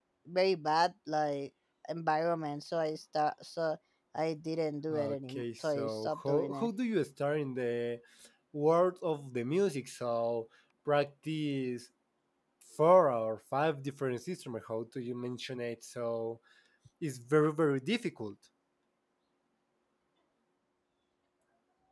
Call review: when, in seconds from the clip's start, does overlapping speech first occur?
4.9 s

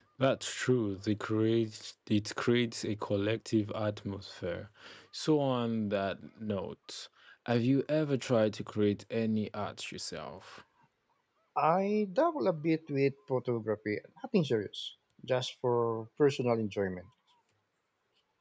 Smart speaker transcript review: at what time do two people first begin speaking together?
none

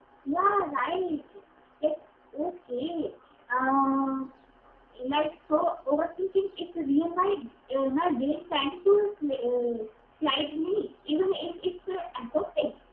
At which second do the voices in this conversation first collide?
none

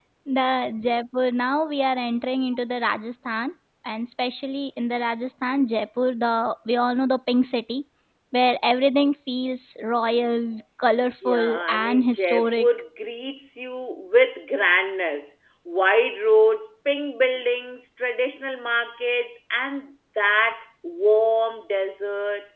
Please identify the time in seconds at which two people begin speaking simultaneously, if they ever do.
11.2 s

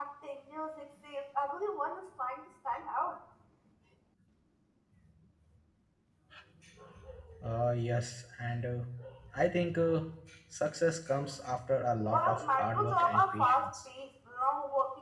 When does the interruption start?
12.1 s

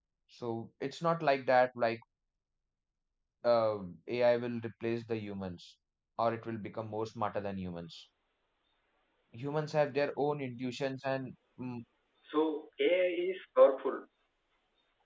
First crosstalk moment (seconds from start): none

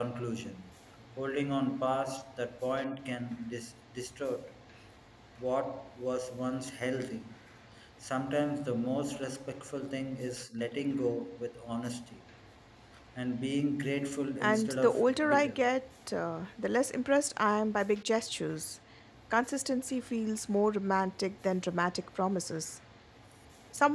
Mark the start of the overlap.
14.4 s

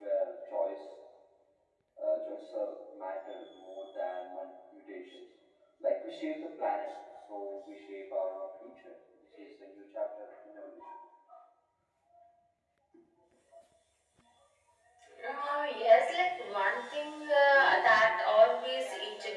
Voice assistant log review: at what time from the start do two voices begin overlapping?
none

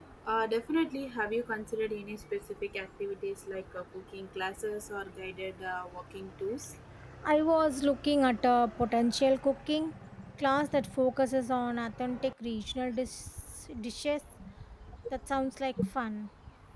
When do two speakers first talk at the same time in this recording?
none

